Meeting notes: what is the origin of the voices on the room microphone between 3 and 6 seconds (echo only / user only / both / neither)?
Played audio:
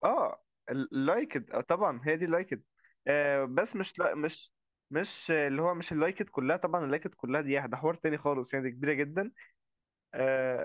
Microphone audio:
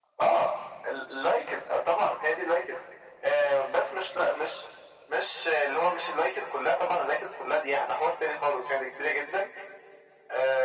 echo only